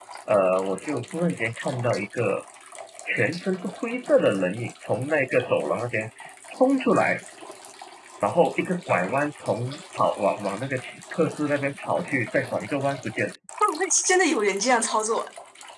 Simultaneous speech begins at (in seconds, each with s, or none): none